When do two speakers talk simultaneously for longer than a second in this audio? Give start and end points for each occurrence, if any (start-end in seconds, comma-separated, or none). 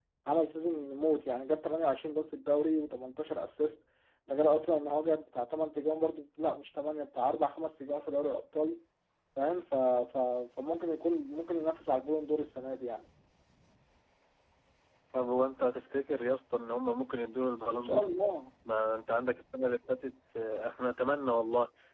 none